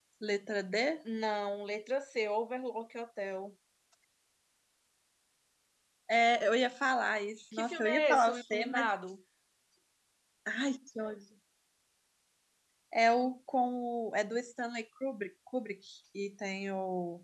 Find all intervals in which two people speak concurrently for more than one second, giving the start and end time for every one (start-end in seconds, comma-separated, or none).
7.5-8.9